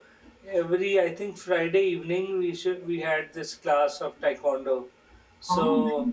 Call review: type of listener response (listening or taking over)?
listening